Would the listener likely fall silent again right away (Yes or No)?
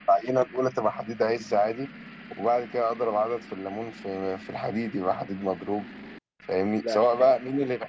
Yes